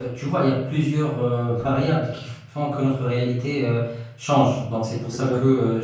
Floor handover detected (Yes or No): No